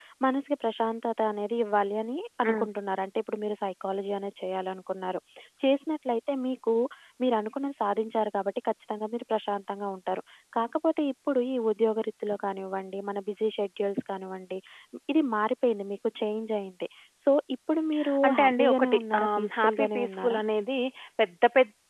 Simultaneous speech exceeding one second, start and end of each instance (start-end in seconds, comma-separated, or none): 18.3-20.4